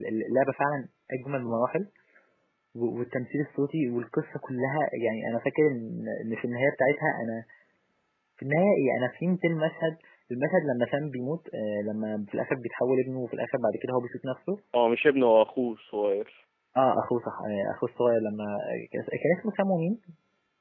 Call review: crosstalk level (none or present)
none